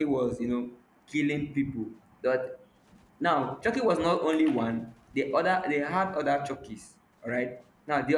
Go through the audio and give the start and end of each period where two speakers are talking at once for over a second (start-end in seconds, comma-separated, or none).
none